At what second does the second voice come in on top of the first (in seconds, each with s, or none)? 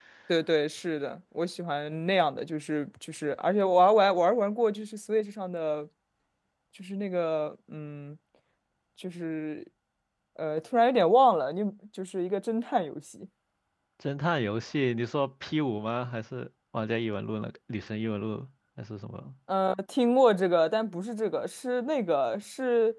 none